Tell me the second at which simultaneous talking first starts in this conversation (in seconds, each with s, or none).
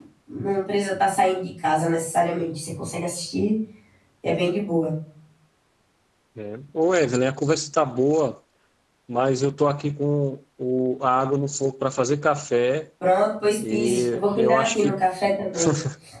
13.7 s